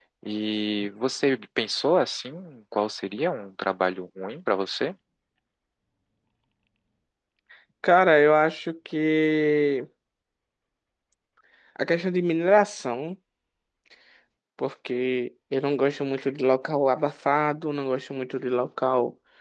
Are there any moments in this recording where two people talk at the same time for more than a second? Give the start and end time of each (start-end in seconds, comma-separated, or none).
none